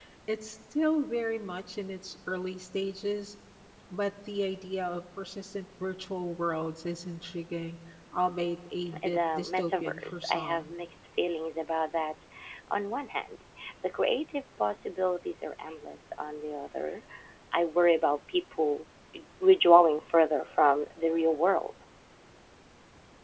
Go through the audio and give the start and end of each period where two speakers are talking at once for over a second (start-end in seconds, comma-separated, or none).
9.0-10.7